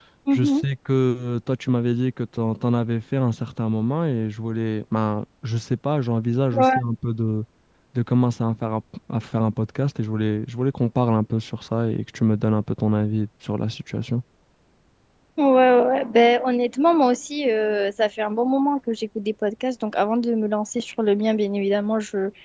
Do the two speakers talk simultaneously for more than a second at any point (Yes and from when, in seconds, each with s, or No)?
No